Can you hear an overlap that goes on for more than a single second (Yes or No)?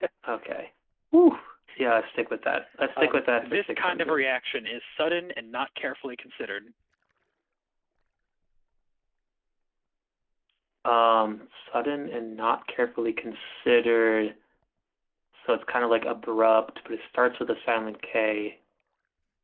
Yes